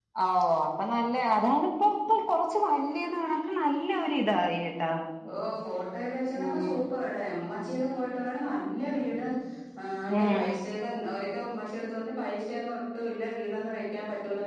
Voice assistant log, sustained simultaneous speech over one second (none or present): none